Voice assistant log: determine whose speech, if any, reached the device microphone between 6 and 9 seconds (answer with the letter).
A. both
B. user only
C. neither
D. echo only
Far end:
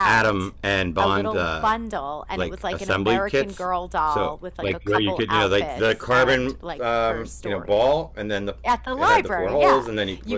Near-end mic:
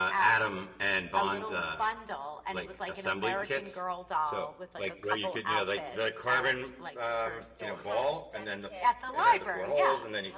A